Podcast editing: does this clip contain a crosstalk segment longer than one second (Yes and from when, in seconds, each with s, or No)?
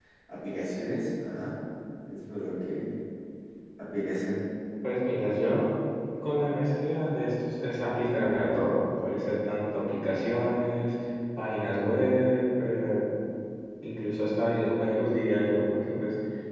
No